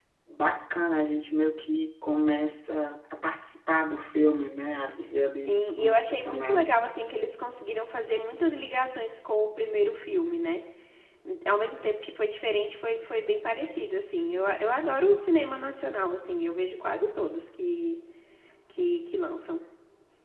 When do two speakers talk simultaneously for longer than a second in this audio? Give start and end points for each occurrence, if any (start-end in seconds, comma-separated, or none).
5.4-6.8